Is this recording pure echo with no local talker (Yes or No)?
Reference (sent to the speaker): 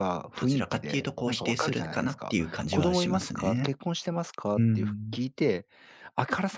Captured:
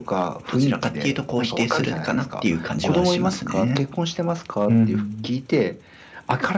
Yes